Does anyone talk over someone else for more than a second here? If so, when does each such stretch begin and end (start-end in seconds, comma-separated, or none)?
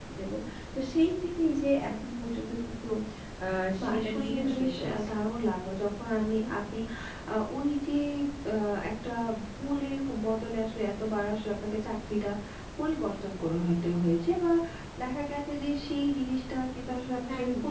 3.8-5.2